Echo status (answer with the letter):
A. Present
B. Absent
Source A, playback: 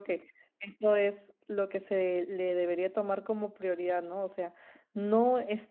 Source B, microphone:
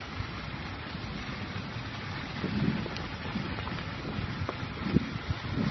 B